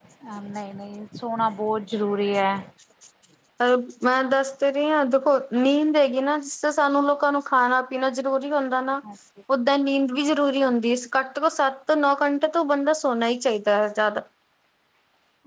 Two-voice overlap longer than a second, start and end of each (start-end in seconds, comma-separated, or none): none